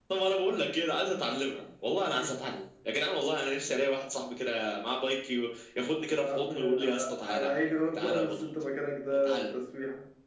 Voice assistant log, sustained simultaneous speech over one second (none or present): present